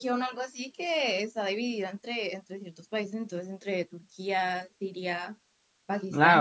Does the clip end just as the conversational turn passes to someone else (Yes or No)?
Yes